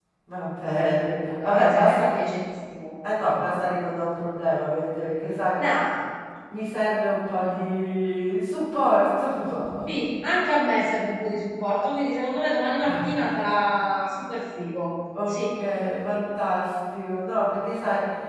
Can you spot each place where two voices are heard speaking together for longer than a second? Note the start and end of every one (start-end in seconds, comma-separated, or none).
0.6-2.3